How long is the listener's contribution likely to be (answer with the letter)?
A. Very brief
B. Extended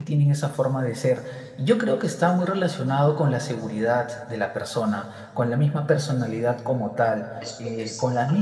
A